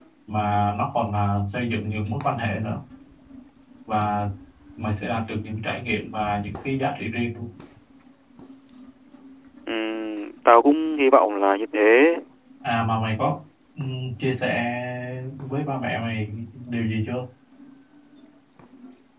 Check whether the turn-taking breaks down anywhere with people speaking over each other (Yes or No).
No